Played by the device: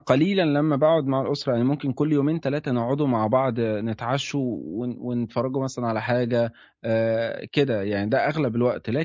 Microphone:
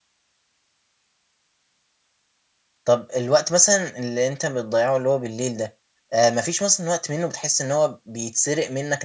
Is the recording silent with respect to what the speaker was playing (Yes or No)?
Yes